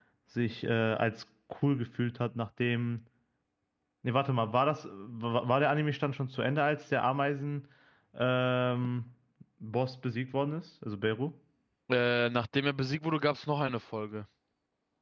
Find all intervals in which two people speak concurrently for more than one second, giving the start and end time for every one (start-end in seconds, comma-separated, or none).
none